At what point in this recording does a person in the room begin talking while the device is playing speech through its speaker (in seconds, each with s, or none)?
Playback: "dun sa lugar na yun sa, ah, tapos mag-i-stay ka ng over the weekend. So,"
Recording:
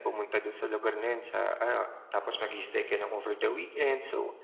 none